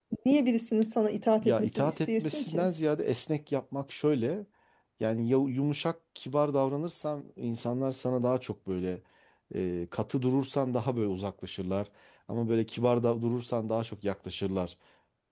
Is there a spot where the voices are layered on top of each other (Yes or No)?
Yes